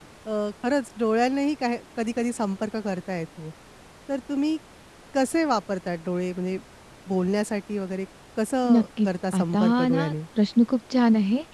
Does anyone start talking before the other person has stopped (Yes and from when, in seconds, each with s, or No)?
Yes, from 8.6 s